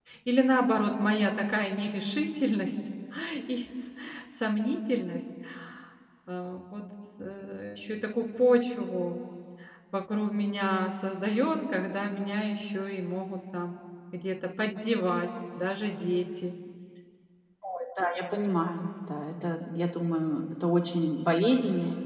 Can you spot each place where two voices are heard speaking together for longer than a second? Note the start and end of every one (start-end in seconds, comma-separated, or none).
none